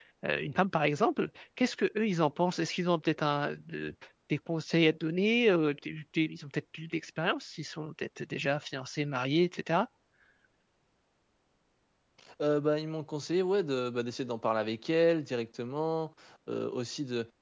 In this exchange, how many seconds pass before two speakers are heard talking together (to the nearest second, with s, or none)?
none